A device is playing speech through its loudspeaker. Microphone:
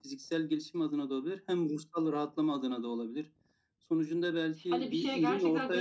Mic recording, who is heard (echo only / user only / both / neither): both